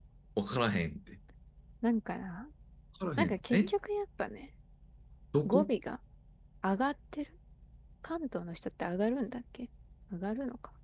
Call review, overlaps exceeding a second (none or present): none